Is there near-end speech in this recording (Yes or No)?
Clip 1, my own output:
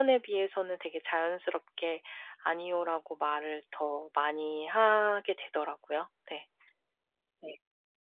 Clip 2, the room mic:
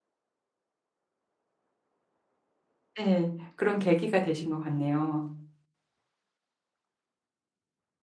Yes